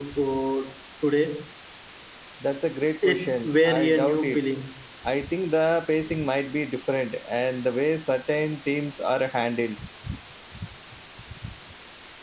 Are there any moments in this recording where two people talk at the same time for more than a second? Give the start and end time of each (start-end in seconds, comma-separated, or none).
3.0-4.4